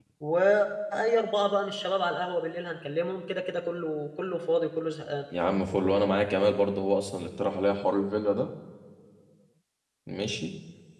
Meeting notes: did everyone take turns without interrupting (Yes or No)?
Yes